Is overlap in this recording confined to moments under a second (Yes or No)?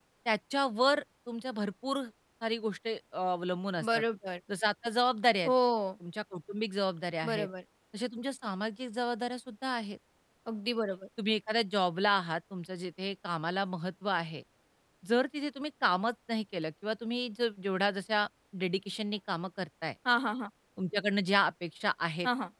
Yes